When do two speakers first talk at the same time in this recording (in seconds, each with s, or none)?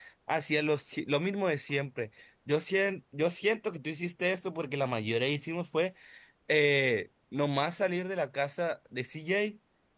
none